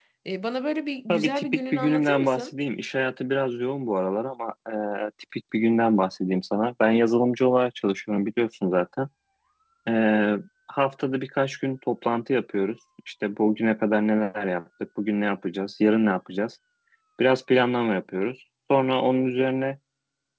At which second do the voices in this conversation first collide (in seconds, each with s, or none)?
1.1 s